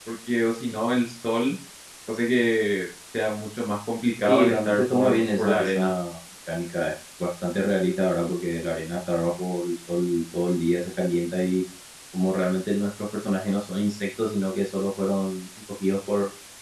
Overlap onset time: 4.3 s

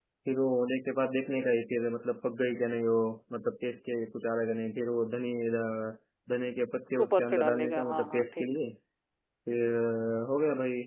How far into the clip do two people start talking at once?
7.0 s

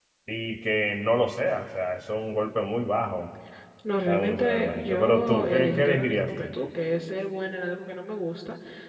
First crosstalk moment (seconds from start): 4.1 s

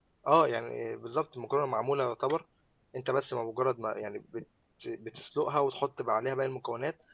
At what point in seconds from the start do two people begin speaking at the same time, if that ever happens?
none

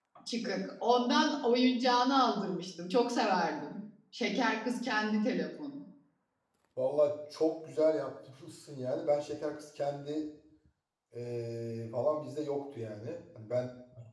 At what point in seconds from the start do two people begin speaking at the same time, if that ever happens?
none

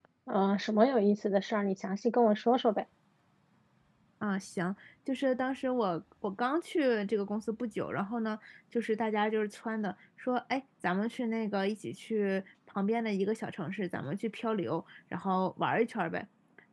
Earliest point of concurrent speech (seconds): none

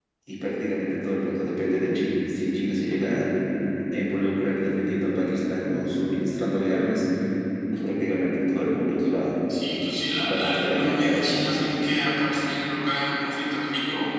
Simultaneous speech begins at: 10.3 s

